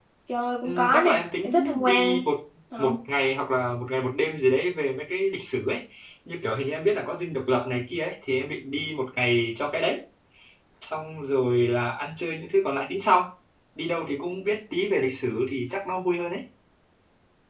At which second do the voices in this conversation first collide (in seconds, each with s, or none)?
0.6 s